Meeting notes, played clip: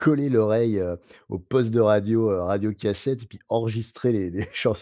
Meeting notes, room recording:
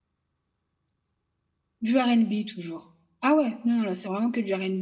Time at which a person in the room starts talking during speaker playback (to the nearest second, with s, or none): 2 s